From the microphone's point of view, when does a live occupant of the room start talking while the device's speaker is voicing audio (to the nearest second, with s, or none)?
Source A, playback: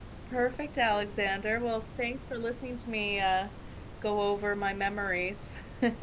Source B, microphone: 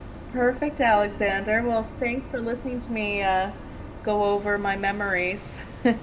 none